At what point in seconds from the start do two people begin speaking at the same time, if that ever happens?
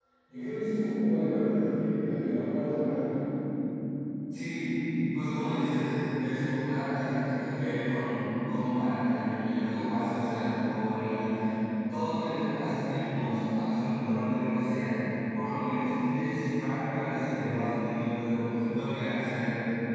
none

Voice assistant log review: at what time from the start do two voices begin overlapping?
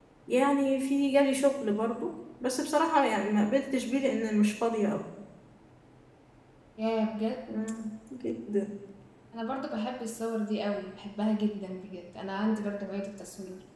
none

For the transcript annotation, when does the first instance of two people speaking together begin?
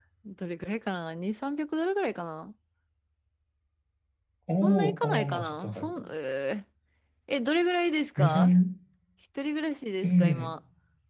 4.6 s

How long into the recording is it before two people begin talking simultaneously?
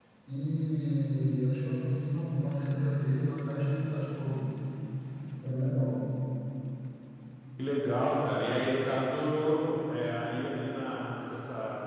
none

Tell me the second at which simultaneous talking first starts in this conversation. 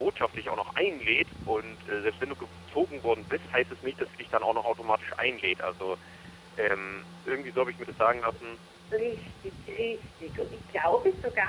none

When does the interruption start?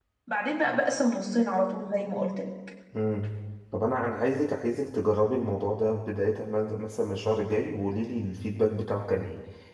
none

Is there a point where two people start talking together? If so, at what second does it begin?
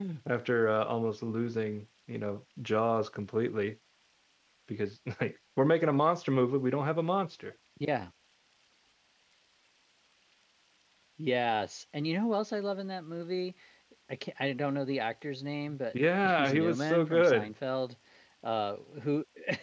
15.9 s

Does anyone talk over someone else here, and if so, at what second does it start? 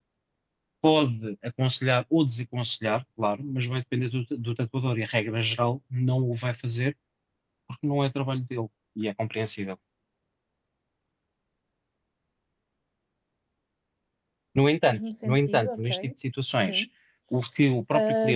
14.8 s

